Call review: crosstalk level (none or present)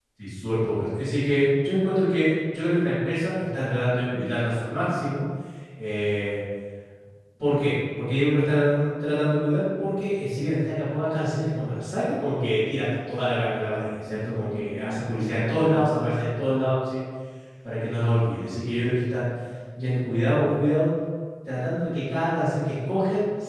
present